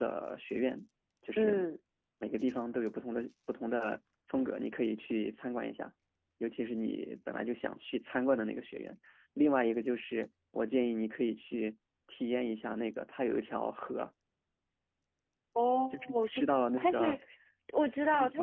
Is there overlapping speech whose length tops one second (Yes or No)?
Yes